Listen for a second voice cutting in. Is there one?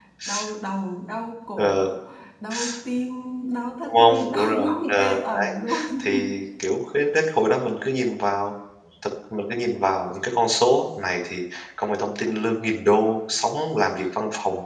Yes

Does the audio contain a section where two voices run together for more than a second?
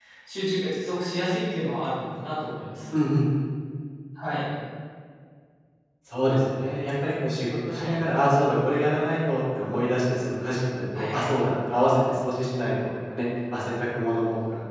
No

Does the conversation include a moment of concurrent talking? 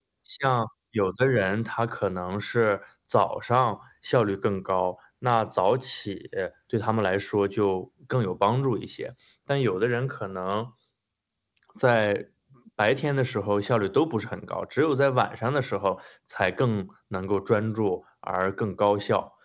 No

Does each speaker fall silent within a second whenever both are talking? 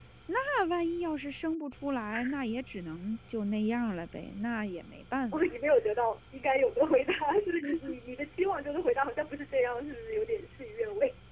Yes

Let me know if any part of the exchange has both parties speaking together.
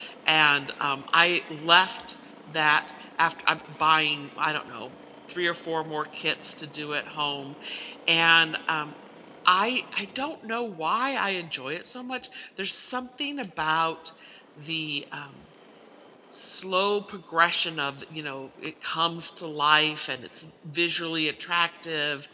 No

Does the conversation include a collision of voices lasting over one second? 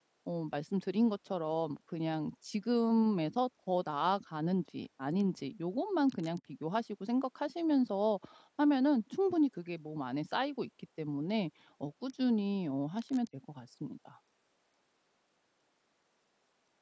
No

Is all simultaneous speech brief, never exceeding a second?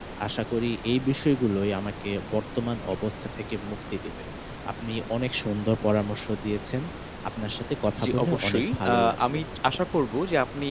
No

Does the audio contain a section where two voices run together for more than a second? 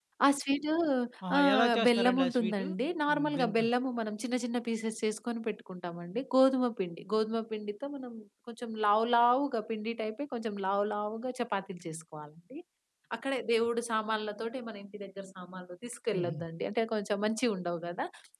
Yes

